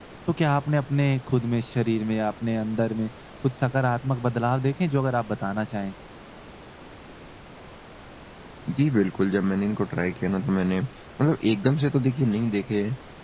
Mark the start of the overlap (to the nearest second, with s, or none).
none